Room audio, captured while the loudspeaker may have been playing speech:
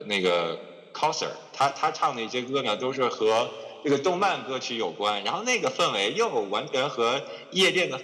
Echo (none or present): present